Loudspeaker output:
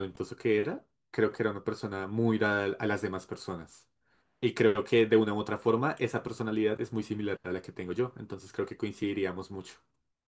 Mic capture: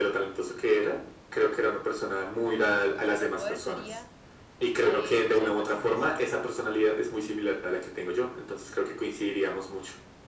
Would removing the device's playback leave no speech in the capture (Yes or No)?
No